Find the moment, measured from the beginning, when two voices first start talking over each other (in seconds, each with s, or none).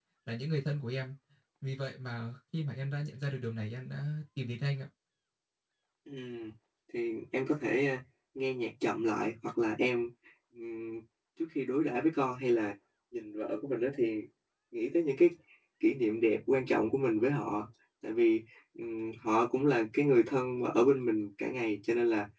none